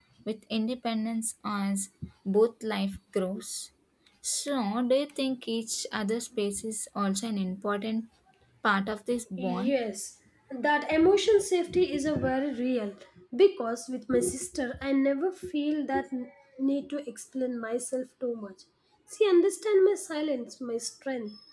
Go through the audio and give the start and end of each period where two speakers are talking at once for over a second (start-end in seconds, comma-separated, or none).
none